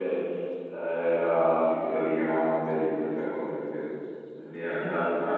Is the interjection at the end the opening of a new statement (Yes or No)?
No